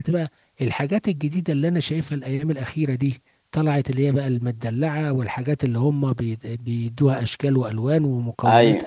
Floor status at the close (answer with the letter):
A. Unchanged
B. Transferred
A